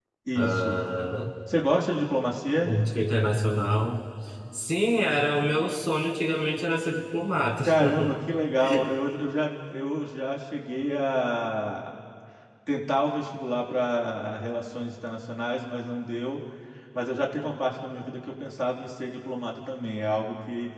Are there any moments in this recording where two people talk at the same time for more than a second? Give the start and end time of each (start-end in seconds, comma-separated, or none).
none